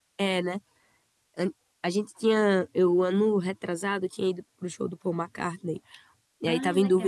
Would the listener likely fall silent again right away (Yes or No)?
Yes